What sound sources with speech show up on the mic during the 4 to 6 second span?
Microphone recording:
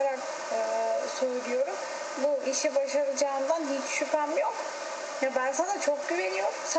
echo only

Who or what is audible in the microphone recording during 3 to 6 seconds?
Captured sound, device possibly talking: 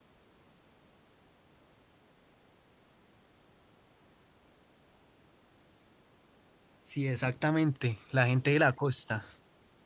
neither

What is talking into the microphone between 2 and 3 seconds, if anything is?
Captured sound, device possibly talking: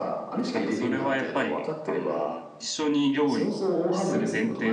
both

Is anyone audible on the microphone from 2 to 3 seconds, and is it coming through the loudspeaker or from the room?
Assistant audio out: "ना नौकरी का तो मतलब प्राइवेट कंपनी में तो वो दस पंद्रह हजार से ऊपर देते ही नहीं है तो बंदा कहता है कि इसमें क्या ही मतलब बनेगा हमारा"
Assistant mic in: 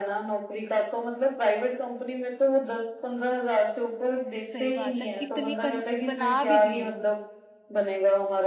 echo only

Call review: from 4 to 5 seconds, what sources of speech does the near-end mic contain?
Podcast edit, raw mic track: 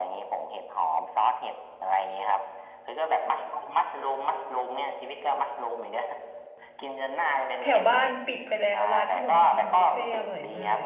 echo only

